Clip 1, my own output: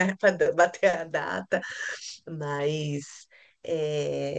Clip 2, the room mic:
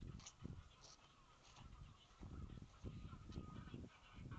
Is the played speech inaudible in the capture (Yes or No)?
Yes